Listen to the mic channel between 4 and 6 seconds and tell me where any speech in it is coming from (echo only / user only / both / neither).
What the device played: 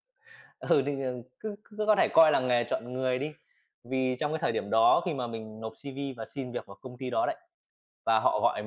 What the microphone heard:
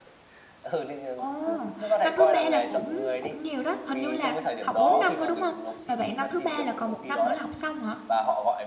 both